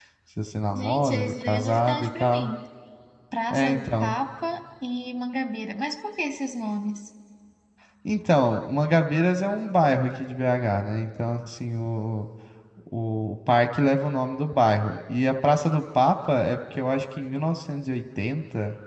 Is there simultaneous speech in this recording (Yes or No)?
Yes